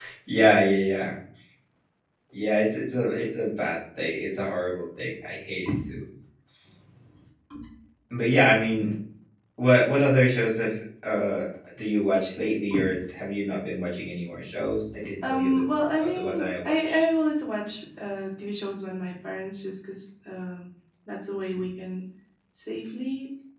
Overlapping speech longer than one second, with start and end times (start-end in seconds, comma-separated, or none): 15.2-17.0